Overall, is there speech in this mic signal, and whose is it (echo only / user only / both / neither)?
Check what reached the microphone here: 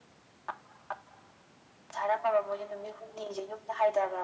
echo only